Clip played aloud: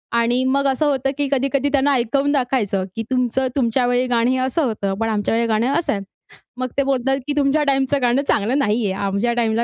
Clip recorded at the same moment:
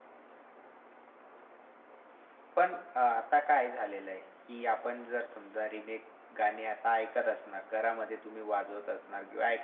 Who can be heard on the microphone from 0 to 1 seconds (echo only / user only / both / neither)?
neither